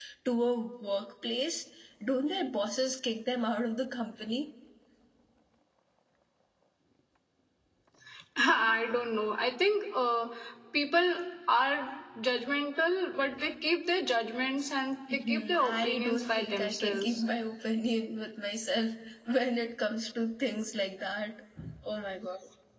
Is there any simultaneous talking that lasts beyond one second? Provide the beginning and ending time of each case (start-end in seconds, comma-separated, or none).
15.1-17.2